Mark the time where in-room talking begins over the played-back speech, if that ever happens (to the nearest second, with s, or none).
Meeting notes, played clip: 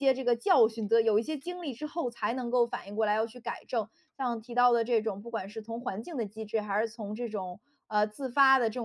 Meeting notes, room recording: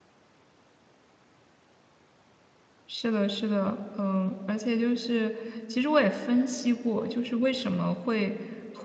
3 s